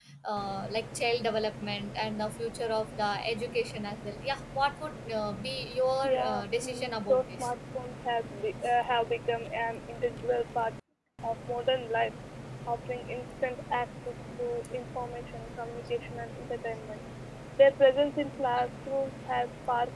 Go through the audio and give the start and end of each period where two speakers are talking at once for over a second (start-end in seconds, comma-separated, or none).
6.0-7.5